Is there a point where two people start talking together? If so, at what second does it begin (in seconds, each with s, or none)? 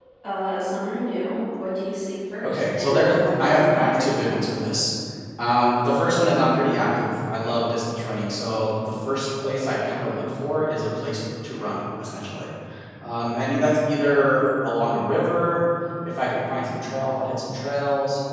2.4 s